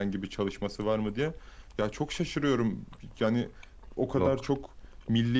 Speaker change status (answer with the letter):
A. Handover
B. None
B